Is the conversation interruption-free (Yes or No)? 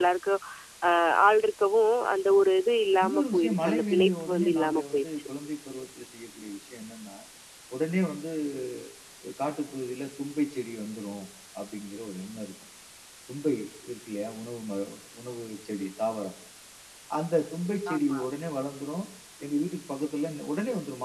No